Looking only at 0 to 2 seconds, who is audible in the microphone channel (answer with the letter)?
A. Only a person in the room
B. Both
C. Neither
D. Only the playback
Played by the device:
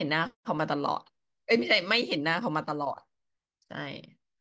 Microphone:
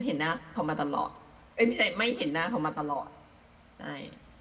D